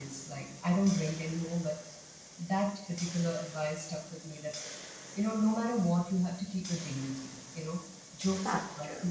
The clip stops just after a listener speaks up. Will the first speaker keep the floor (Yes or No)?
Yes